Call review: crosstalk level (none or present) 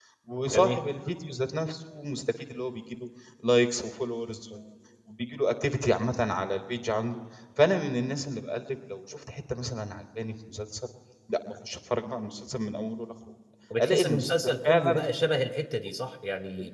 present